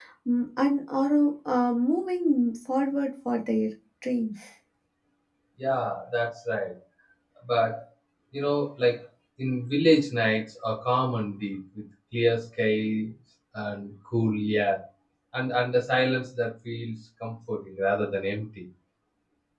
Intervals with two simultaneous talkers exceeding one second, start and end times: none

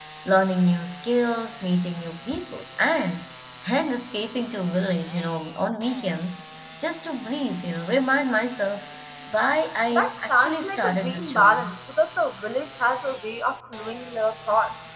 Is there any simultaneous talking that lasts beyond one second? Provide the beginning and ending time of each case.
9.9-11.7

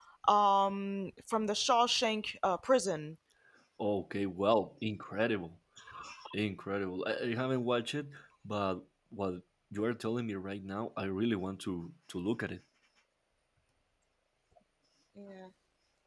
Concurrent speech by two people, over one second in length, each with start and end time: none

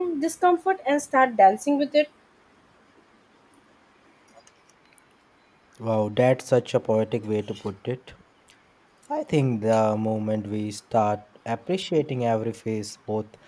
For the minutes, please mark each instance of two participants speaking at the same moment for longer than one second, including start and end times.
none

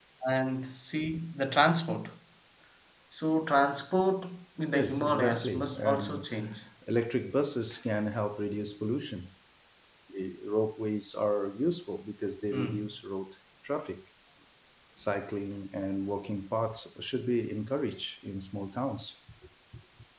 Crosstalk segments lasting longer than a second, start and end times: 4.7-6.3

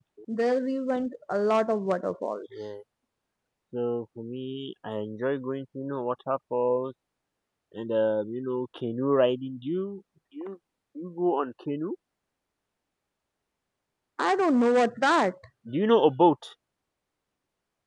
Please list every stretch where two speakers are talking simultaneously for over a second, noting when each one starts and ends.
none

